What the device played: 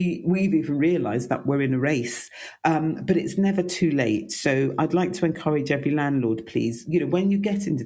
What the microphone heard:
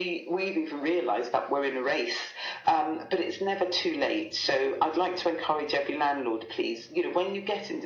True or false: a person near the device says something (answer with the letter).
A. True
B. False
B